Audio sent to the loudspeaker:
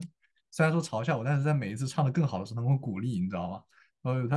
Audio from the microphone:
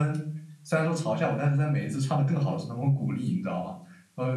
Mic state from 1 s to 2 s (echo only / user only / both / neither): echo only